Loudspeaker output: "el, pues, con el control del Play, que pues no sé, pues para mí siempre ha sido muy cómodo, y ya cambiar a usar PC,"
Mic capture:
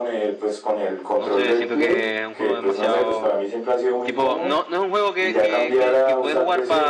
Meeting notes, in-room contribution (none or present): present